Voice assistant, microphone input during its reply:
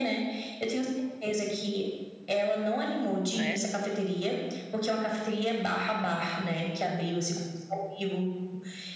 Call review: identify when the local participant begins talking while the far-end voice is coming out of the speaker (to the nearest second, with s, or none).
3 s